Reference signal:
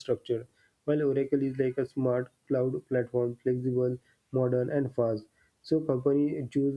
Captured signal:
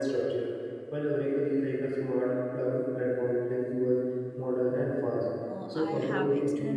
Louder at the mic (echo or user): echo